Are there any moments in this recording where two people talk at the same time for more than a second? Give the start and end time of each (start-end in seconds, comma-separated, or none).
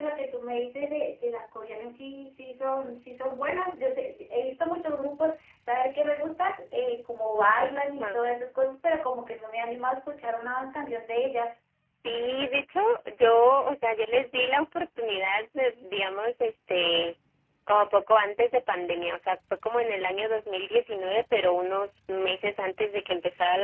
none